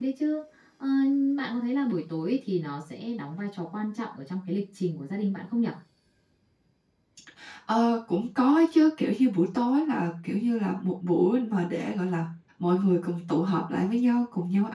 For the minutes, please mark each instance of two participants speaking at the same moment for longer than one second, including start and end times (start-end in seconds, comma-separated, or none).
none